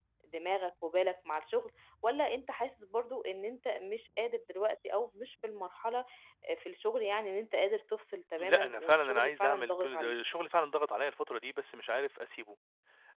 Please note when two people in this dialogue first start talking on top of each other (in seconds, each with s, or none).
8.4 s